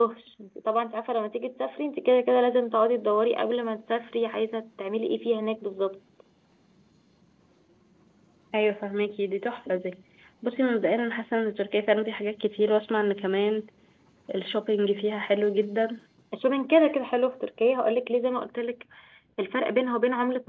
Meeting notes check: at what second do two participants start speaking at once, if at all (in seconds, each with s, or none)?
none